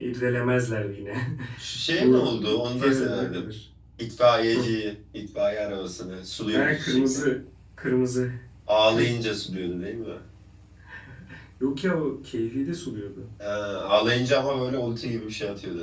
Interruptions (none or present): present